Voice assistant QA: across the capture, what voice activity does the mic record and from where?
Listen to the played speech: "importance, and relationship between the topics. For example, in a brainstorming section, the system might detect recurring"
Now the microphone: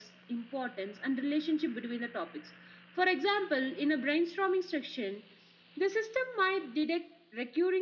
echo only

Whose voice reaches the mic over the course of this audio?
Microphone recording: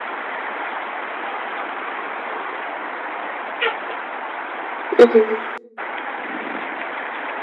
user only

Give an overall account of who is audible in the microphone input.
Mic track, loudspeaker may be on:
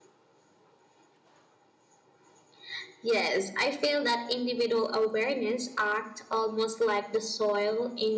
echo only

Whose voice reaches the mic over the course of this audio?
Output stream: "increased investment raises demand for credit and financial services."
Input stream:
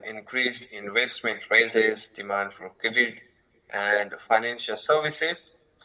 echo only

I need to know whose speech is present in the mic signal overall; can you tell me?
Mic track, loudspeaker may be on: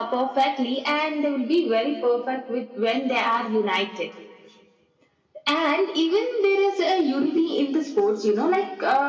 echo only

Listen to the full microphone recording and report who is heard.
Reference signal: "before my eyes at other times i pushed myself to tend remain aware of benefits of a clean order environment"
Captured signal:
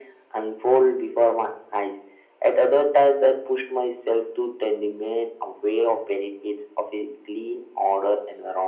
echo only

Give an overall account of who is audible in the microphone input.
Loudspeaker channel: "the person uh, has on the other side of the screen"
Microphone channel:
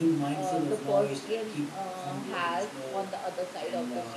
both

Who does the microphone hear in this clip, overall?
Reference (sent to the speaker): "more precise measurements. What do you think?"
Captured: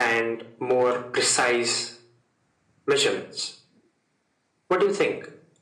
echo only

